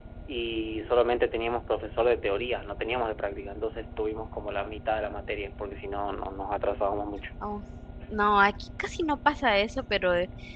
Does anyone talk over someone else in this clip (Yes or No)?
No